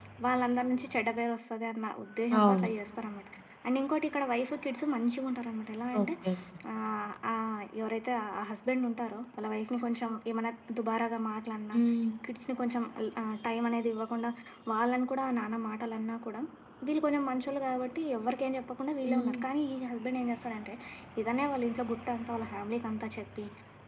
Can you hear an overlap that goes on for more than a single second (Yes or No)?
No